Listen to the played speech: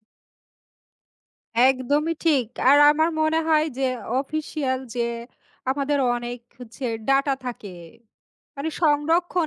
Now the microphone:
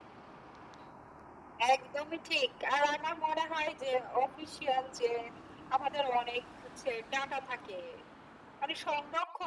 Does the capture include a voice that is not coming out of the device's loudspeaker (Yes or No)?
No